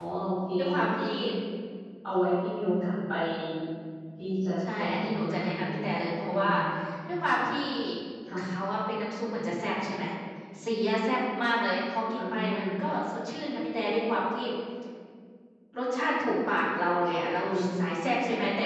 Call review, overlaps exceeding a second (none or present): present